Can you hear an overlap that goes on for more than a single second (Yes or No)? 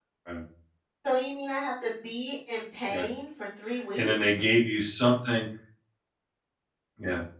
No